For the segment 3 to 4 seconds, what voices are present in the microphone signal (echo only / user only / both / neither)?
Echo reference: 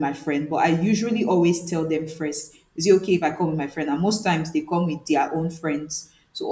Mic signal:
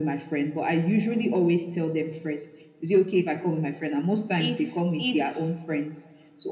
echo only